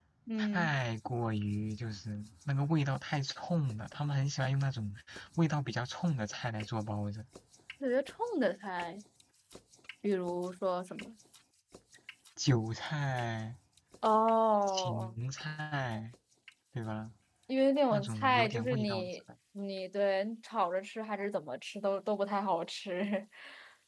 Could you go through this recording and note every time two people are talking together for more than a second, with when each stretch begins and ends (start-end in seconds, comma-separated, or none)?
17.9-19.2